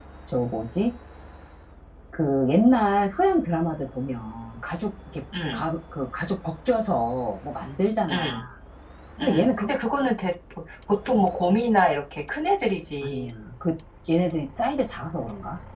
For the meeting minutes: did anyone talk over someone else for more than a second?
No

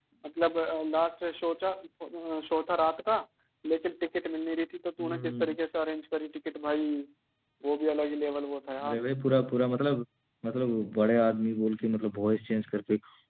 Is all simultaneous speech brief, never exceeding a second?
Yes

